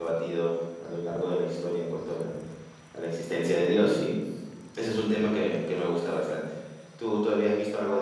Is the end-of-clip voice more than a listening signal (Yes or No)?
Yes